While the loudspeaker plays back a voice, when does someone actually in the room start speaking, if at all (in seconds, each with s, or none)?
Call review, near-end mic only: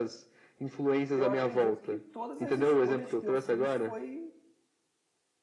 1.1 s